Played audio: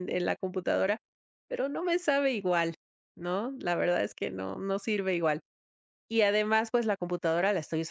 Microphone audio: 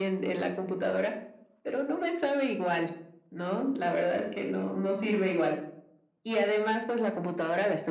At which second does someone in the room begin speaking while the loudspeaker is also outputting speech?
none

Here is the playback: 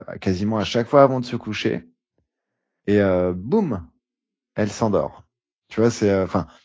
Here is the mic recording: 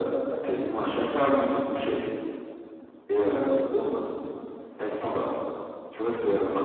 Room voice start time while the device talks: none

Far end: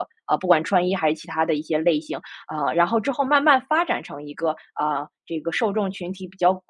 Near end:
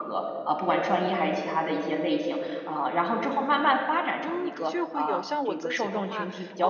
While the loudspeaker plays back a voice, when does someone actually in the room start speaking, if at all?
4.2 s

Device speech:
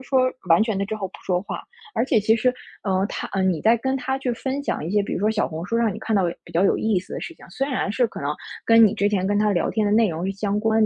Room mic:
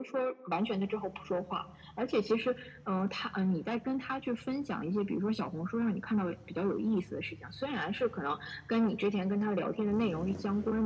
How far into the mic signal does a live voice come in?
none

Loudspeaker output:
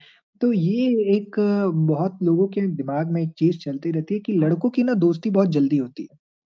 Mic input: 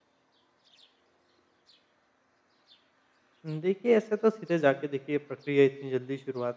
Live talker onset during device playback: 3.4 s

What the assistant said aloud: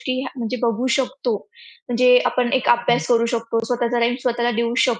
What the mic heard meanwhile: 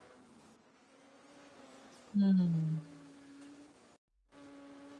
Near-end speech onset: 2.1 s

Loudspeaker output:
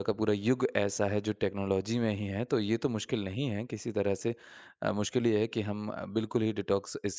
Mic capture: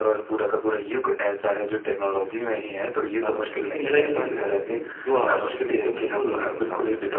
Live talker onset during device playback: 2.5 s

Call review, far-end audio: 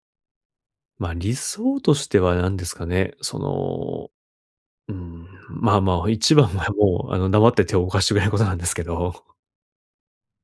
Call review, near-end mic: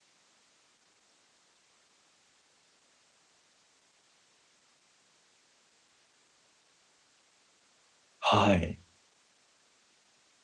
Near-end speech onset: 8.2 s

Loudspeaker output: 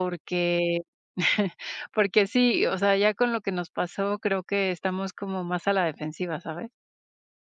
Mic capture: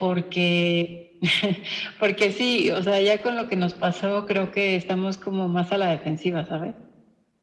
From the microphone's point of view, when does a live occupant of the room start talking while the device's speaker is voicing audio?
none

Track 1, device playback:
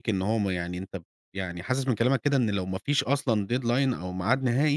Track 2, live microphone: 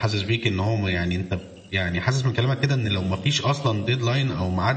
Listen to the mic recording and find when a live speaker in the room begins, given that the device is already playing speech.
none

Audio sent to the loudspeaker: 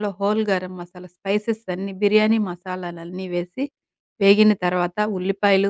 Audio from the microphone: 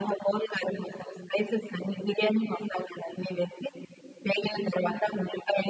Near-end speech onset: none

